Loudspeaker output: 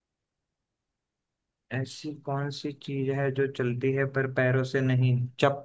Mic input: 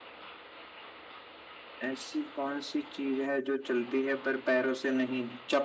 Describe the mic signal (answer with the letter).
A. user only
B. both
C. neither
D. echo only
D